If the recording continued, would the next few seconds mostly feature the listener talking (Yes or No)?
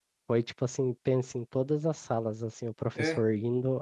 No